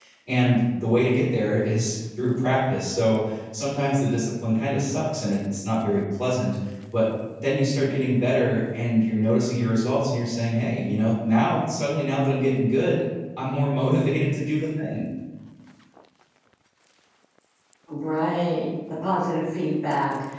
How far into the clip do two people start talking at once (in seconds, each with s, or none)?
none